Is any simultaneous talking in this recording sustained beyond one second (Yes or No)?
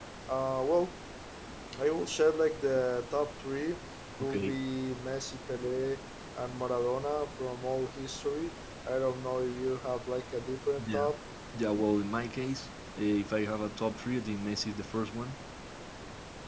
No